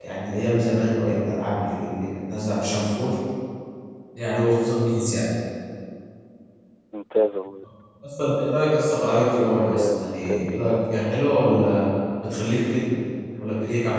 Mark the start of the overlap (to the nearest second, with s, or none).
10 s